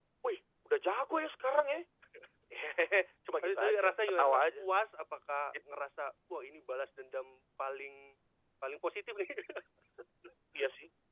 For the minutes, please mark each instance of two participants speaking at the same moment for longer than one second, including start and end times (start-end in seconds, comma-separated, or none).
3.4-4.6